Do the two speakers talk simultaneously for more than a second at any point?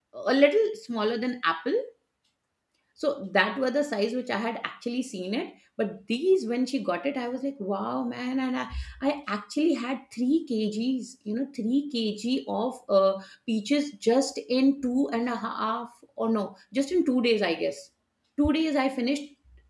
No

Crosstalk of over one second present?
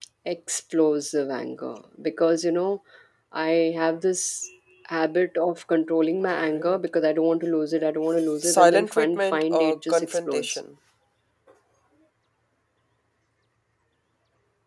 Yes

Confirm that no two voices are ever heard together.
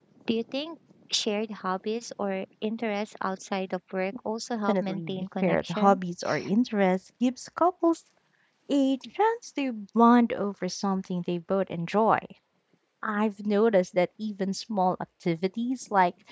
No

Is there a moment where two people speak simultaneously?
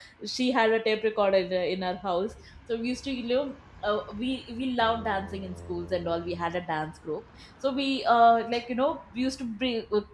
No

